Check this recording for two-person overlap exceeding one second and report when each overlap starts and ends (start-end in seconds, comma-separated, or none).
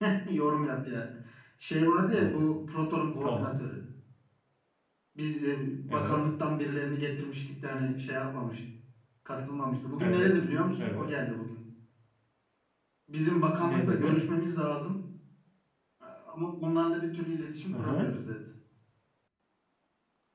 none